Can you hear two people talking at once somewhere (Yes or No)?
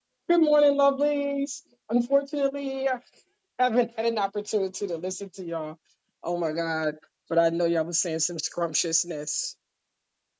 No